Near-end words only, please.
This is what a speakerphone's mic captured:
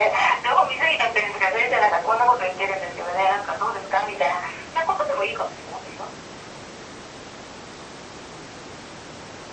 none

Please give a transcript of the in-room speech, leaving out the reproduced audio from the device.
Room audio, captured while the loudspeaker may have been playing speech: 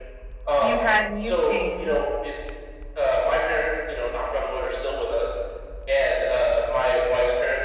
you've had and you've changed.

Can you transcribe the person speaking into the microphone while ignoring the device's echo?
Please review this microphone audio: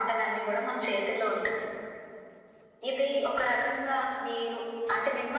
none

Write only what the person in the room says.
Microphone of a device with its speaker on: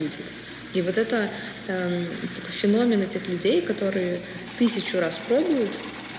none

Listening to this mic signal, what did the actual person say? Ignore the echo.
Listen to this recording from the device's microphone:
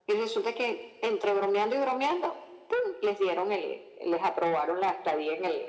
none

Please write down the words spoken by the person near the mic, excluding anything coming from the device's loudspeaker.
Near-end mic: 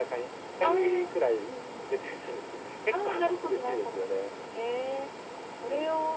none

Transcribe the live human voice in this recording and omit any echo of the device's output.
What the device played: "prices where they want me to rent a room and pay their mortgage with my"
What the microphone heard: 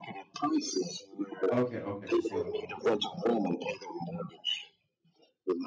Okay. Okay. You sold them all. Okay. Sorry.

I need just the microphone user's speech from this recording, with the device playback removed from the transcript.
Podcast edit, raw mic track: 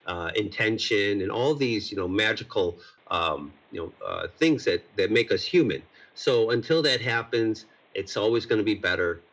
none

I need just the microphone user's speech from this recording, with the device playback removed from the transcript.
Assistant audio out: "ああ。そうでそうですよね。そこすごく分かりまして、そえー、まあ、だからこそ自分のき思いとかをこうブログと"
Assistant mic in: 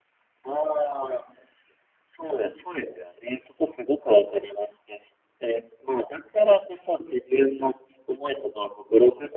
none

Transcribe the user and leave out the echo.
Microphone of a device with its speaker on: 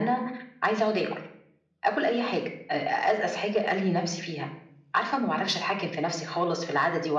none

